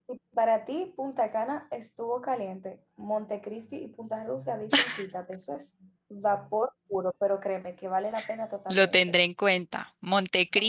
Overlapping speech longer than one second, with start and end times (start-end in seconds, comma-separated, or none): none